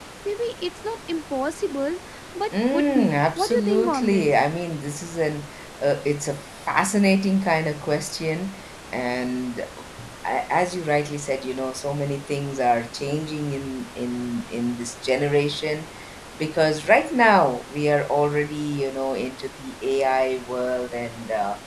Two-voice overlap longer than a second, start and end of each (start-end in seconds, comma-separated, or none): 2.7-4.3